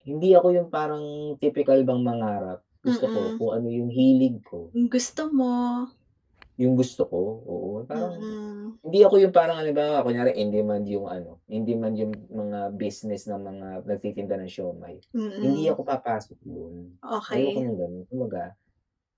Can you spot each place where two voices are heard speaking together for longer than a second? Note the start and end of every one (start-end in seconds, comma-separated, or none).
none